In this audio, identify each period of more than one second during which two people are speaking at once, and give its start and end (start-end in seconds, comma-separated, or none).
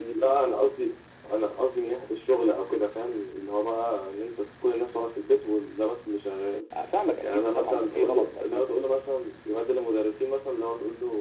7.2-8.6